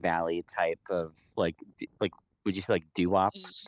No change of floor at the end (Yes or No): No